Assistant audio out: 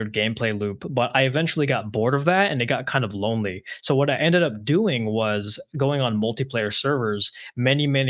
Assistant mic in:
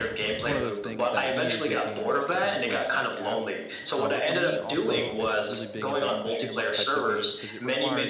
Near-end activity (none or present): present